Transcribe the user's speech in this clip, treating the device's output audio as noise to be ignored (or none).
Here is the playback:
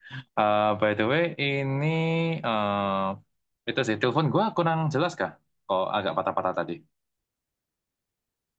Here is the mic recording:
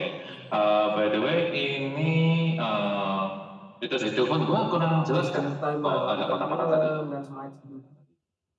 uh, wasting time lah nonton film dan semacamnya.